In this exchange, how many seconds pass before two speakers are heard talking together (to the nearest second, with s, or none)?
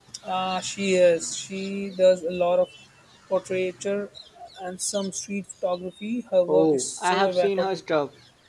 6 s